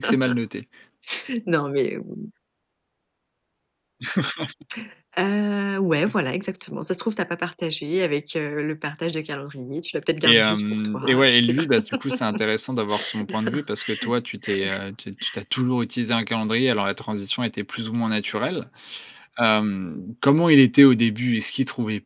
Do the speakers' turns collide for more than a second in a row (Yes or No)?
Yes